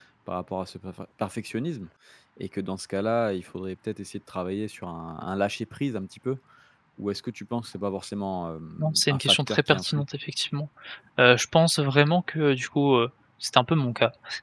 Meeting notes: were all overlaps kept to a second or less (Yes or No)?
No